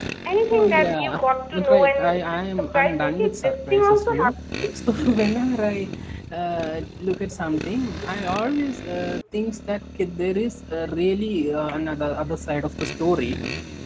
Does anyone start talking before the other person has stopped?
Yes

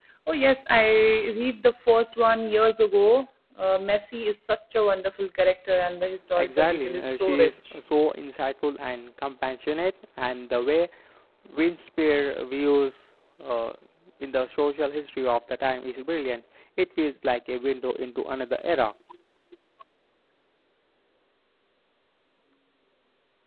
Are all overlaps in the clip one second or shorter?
No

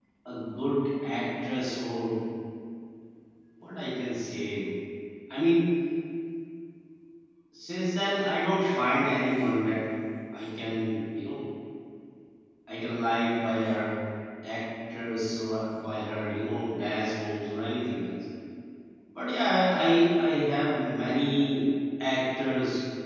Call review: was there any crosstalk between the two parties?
No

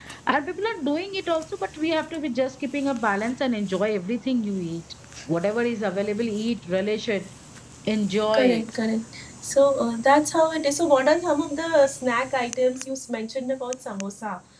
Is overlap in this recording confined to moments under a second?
Yes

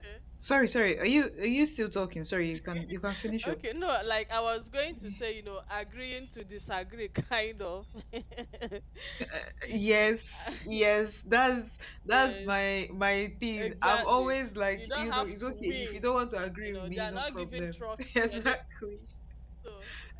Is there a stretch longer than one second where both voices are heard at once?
Yes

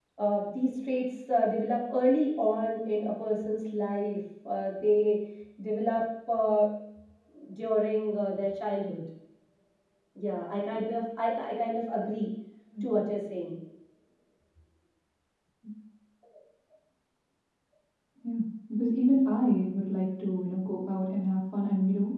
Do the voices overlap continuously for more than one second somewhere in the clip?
No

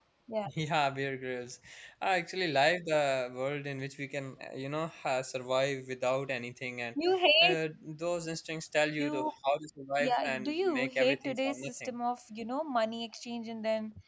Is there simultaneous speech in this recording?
Yes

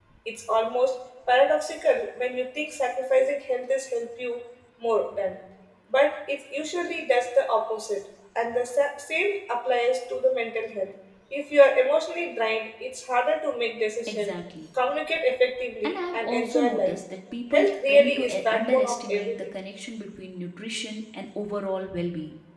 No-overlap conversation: No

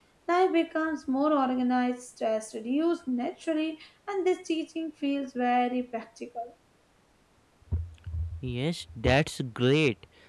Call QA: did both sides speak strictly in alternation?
Yes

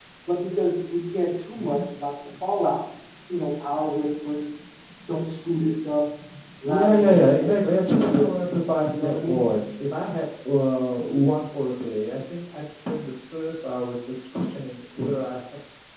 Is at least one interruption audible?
Yes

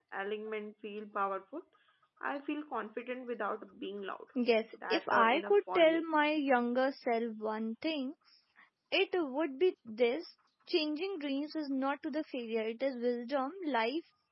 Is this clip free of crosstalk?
No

